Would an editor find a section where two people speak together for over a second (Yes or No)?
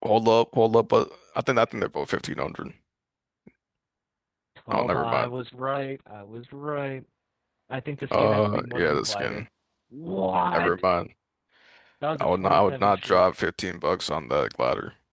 Yes